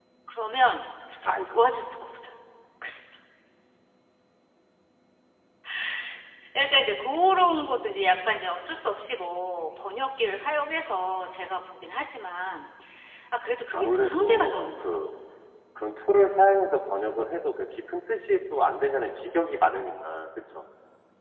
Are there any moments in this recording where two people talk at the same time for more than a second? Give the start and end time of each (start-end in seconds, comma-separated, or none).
13.7-15.0